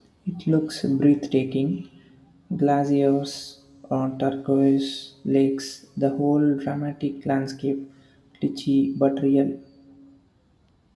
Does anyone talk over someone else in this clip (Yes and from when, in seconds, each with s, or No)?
No